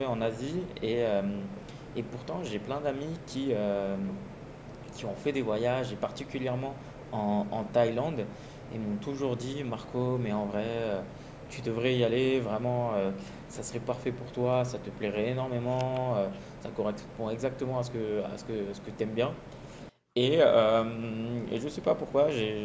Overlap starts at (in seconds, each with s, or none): none